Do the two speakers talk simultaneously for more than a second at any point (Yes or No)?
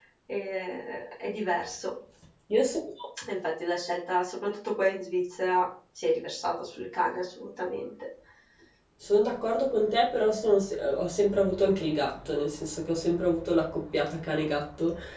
No